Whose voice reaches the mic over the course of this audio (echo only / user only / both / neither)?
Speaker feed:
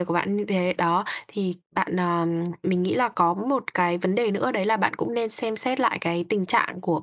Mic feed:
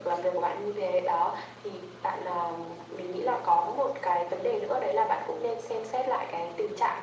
echo only